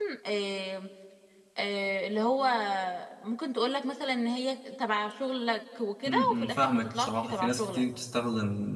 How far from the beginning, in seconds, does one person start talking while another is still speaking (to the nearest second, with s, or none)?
6 s